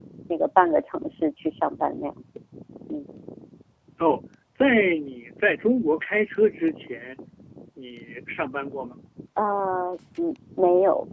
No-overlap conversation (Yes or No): Yes